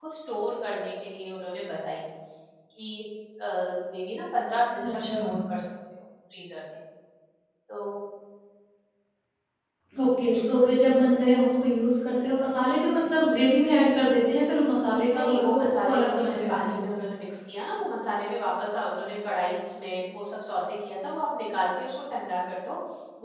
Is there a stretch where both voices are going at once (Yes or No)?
Yes